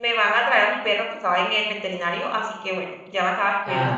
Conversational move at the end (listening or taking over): listening